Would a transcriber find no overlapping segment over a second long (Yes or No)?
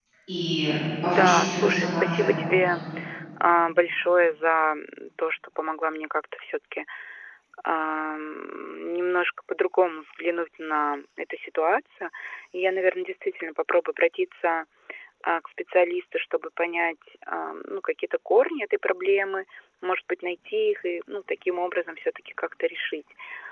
No